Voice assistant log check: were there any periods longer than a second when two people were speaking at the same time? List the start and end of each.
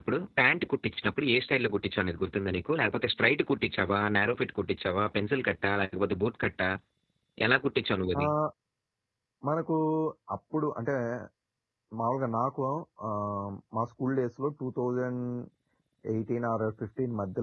none

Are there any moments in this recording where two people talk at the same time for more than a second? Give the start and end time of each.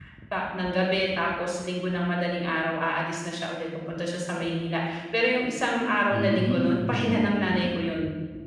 6.1-7.8

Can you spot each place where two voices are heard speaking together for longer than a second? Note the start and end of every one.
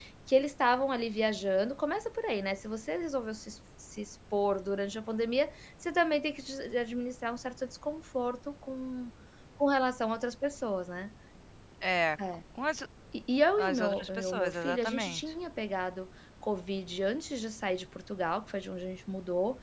13.6-15.2

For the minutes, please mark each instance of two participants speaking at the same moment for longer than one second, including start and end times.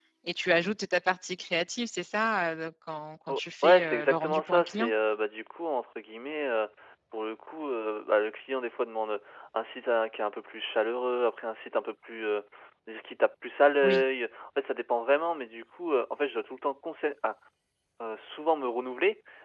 3.3-4.9

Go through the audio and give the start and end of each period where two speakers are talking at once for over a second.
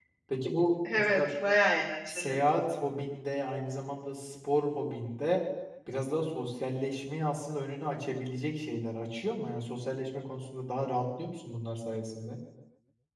none

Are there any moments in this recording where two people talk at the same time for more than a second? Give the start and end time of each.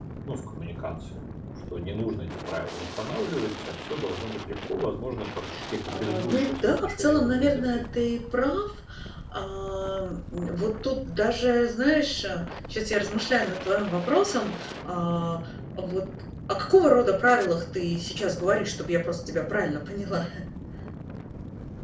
5.9-8.0

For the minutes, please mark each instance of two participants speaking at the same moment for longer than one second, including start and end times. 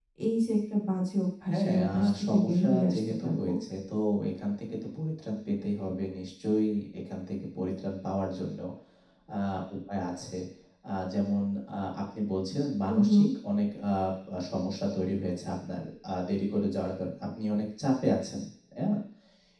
1.5-3.5

